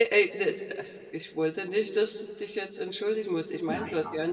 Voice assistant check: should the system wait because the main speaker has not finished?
Yes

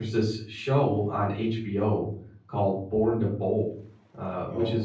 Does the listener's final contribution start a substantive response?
No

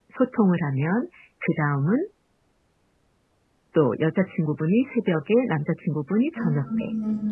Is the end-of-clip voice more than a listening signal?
No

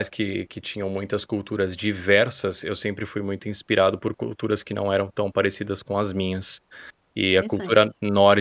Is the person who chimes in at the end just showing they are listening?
Yes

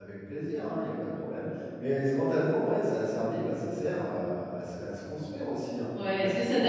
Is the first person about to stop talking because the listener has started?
Yes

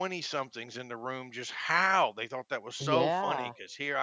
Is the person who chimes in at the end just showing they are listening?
Yes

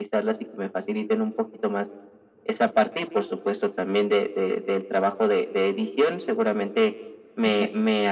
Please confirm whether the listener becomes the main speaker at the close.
No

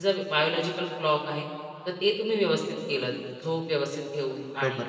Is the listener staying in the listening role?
No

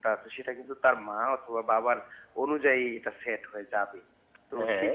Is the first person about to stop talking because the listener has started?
No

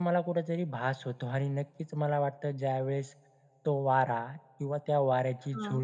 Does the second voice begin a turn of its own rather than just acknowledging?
No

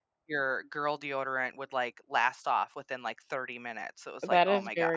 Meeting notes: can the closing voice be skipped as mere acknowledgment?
No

